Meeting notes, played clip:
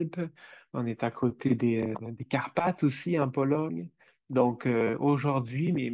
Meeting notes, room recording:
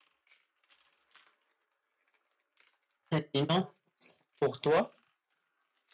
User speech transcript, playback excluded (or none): Et sinon, pour toi?